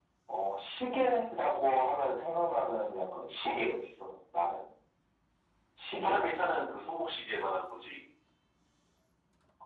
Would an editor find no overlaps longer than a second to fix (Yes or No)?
Yes